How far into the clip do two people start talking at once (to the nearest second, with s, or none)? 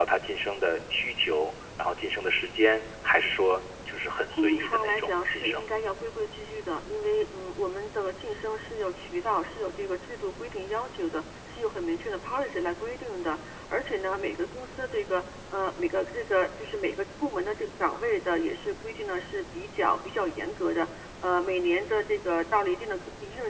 4 s